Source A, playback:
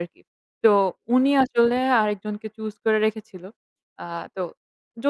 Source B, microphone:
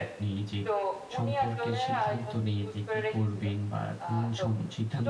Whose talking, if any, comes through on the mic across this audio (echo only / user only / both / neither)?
both